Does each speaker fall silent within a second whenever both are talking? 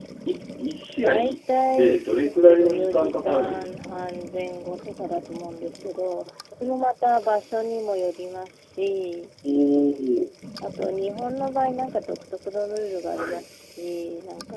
No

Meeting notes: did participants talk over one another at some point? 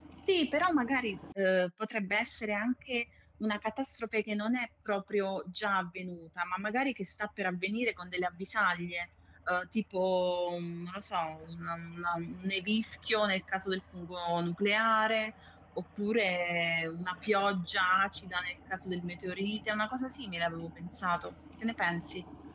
No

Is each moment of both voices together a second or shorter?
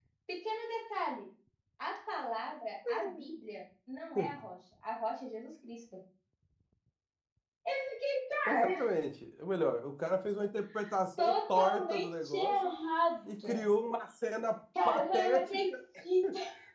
No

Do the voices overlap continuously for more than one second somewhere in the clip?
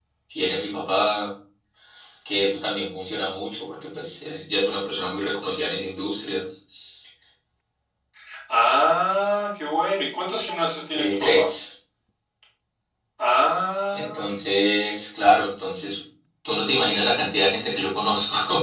No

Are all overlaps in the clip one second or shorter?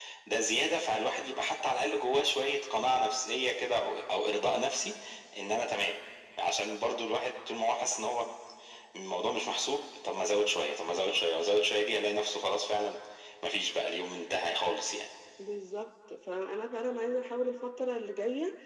Yes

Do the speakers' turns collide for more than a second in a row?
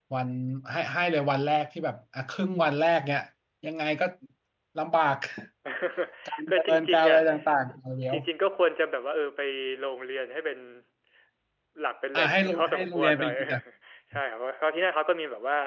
Yes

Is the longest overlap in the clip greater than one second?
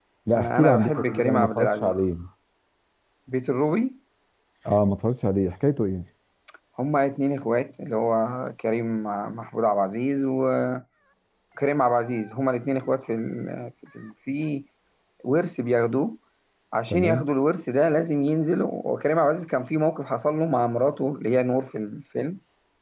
Yes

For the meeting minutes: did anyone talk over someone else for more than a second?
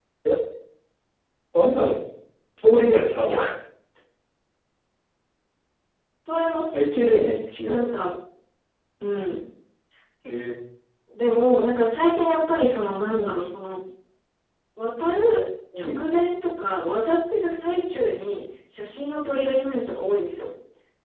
No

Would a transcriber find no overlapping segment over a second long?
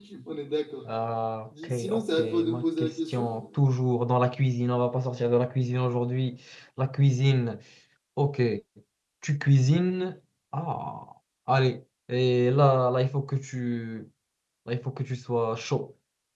No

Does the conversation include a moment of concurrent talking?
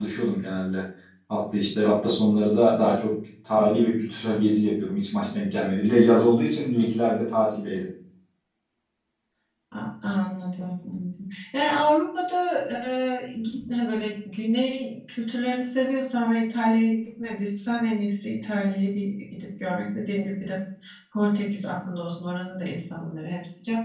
No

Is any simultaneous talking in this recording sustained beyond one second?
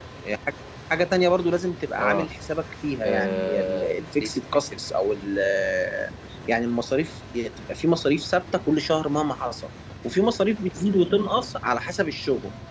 Yes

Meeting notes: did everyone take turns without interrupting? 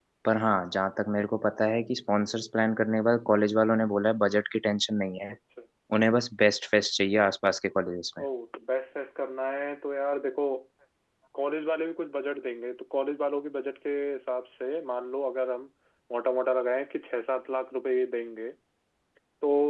Yes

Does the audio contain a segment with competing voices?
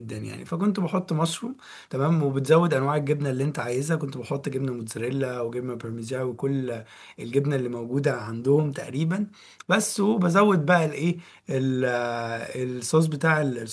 No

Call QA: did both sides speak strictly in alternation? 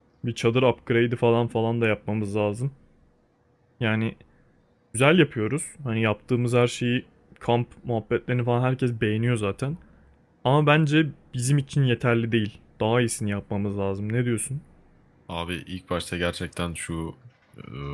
Yes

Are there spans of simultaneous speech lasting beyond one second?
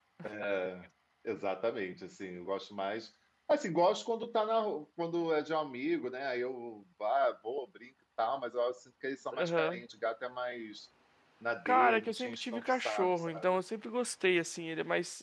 Yes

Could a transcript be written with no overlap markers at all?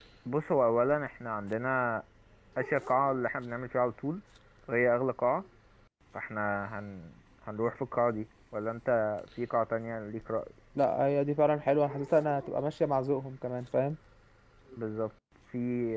Yes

